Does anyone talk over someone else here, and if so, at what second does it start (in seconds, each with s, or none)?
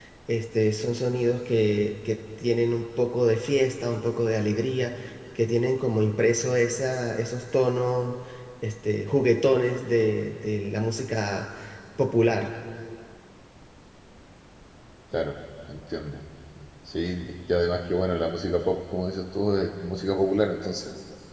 none